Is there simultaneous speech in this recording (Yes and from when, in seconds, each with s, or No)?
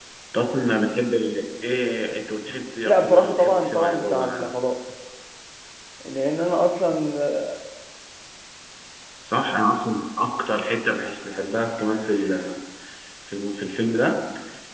Yes, from 2.9 s